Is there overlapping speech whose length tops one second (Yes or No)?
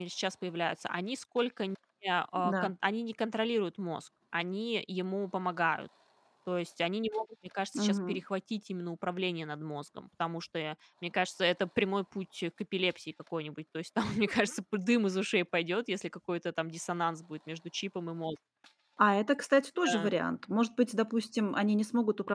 No